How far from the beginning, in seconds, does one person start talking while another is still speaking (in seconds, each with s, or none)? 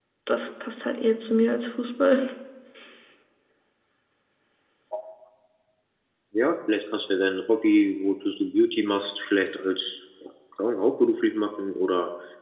none